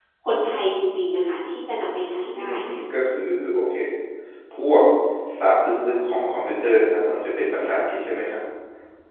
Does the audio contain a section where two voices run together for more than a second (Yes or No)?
No